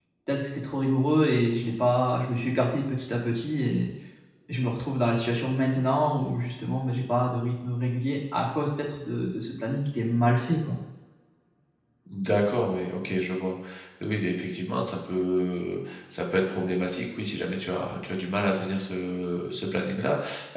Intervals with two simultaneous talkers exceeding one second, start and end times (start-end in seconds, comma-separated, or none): none